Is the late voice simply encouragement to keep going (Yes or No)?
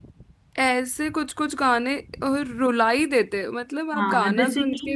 No